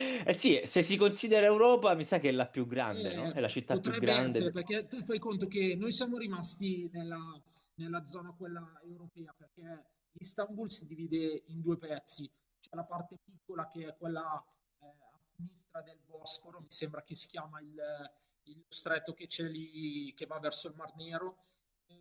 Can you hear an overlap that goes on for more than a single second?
Yes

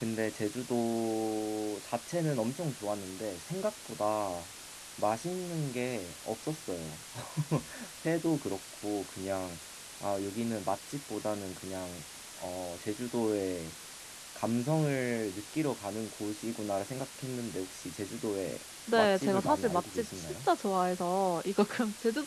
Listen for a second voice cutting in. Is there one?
Yes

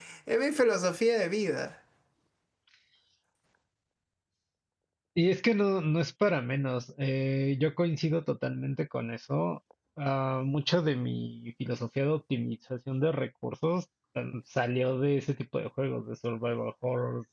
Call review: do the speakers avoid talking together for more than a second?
Yes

